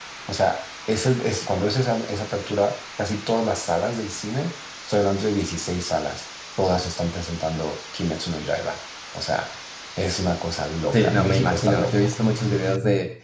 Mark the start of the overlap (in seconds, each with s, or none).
10.9 s